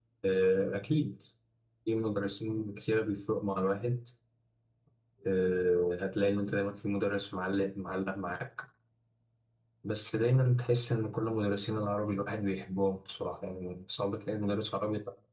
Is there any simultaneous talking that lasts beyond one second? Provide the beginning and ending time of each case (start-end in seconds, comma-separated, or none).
none